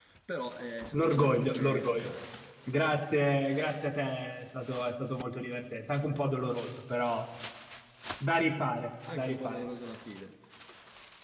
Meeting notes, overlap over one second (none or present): present